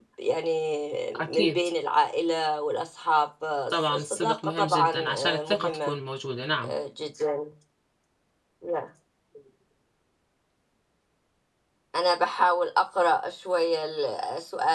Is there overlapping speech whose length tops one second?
Yes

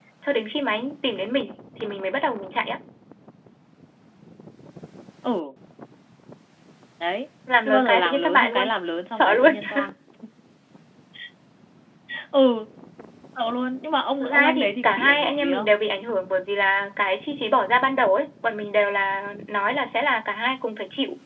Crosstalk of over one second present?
Yes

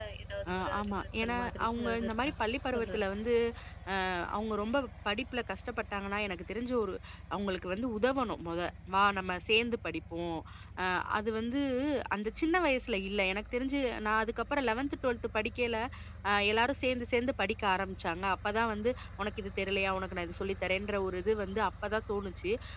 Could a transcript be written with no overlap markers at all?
No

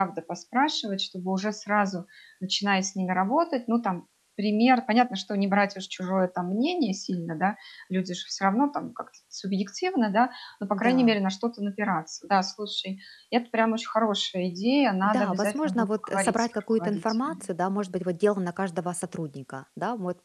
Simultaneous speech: Yes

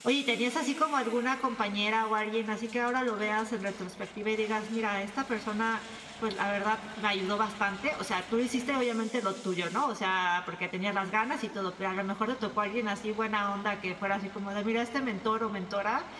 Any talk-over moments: No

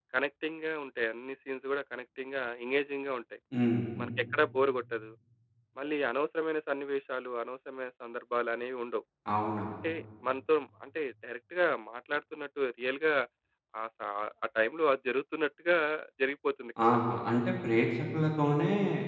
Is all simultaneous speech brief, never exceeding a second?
Yes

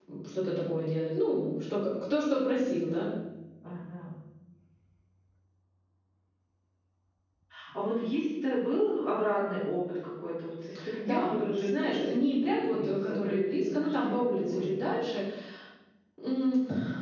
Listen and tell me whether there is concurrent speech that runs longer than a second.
Yes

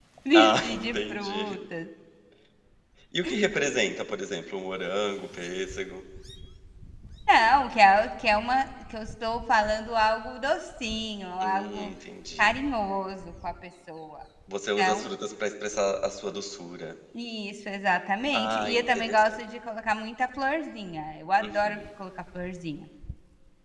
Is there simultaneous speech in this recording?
Yes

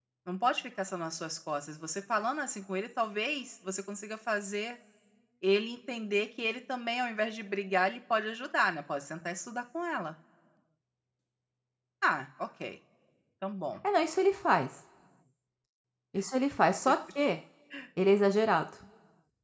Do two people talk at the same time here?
No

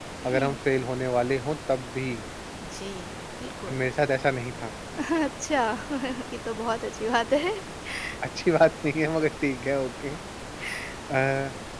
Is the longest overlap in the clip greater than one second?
No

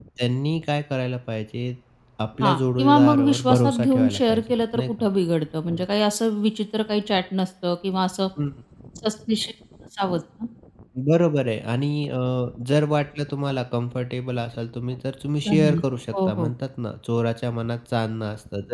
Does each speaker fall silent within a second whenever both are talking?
No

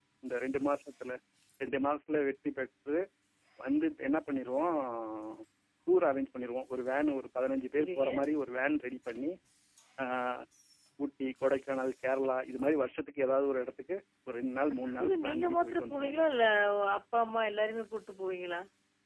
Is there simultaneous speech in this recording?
Yes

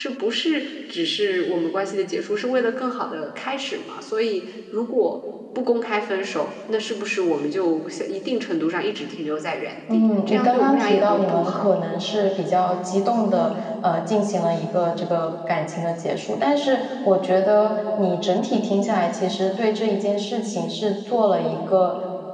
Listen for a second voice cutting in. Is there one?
Yes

